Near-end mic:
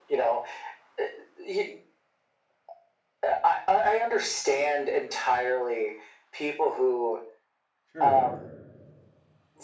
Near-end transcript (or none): Sure.